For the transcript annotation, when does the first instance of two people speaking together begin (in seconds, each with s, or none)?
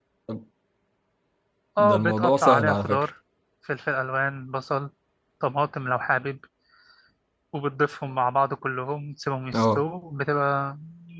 1.8 s